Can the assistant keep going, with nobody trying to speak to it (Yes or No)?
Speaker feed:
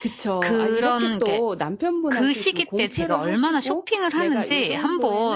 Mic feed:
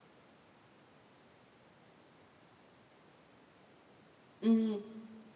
No